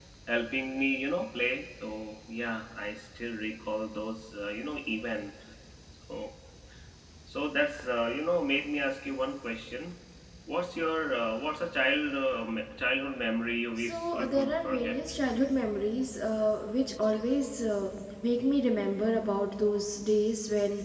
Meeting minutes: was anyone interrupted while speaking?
Yes, from 13.8 s

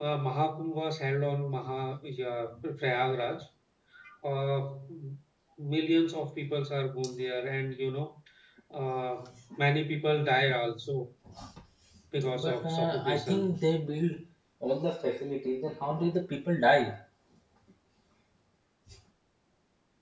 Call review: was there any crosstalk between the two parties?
Yes, from 12.3 s

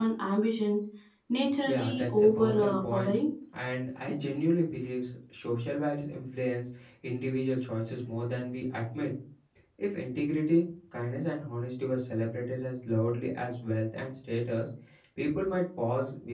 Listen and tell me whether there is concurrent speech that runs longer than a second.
Yes, from 1.6 s

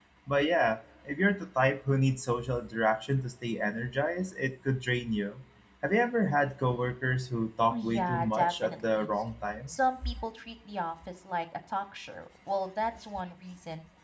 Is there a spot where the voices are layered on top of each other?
Yes, from 7.7 s

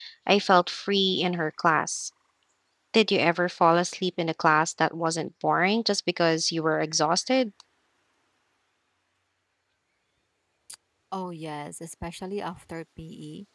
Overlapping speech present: No

